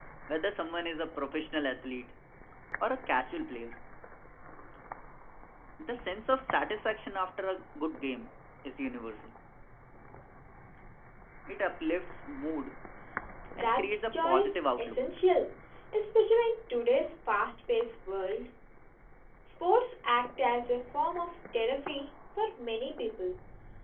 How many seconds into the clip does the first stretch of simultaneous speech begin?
13.6 s

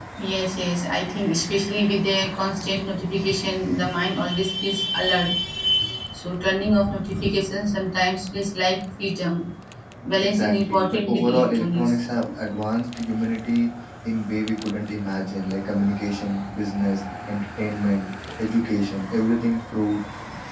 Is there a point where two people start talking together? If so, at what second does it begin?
10.2 s

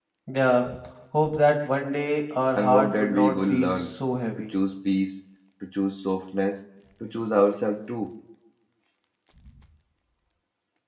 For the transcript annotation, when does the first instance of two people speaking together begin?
2.5 s

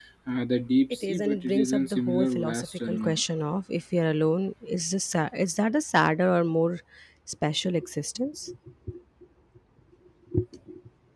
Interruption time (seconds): 1.1 s

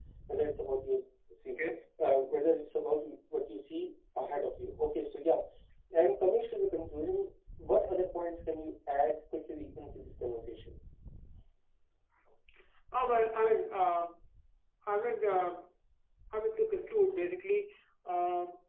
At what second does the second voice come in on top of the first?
none

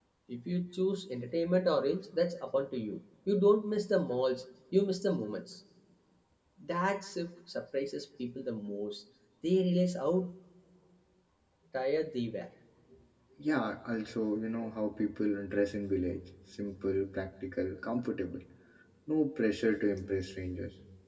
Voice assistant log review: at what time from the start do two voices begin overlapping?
none

